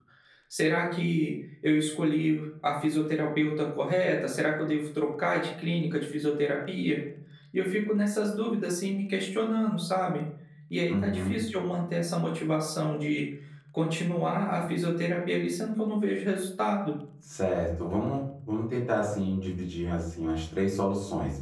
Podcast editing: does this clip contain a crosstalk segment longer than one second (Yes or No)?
No